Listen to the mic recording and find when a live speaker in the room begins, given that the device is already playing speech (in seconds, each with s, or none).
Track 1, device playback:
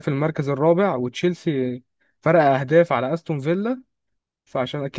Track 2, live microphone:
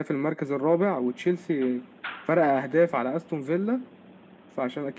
none